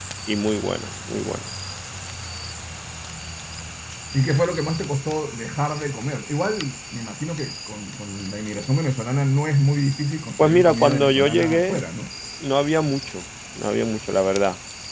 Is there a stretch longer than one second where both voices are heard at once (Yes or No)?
Yes